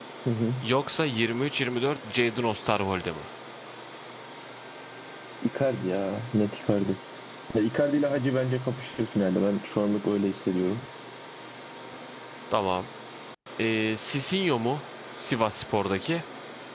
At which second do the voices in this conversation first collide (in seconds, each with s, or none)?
none